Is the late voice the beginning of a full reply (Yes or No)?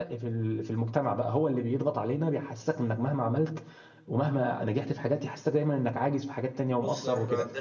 Yes